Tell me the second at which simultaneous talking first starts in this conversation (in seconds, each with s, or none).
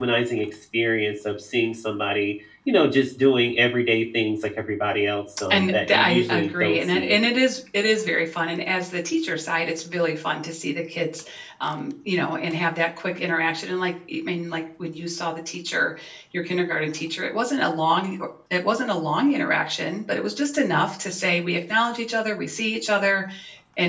5.5 s